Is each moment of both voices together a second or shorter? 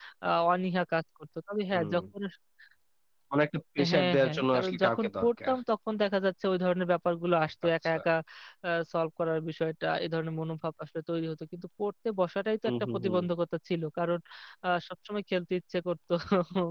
No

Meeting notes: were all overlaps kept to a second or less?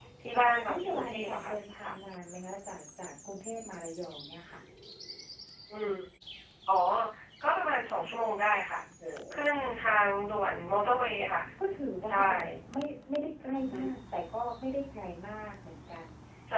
No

